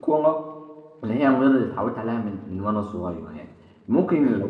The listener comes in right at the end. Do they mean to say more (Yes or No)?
No